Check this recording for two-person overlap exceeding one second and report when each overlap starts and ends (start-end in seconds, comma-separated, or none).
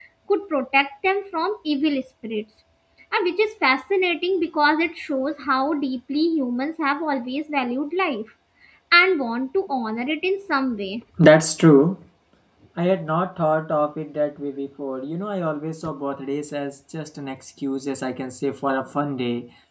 none